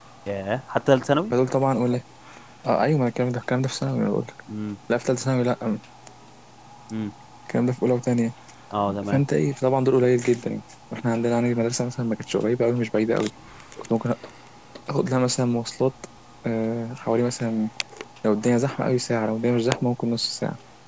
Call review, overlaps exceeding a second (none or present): none